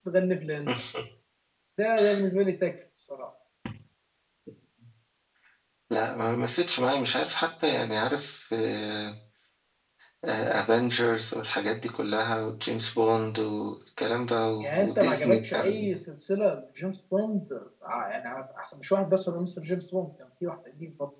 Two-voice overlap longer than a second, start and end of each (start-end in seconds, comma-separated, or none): 14.6-15.9